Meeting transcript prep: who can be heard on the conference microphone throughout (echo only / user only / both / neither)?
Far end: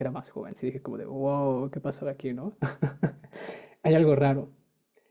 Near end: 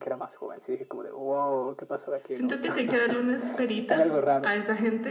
both